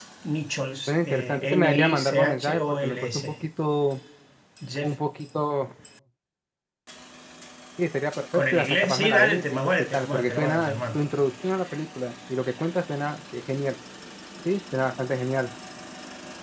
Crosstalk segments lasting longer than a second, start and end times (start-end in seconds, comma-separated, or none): 0.9-3.2, 8.3-11.0